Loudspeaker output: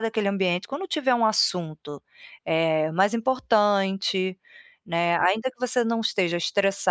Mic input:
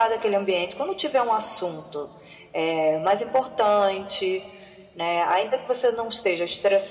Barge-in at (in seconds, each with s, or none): none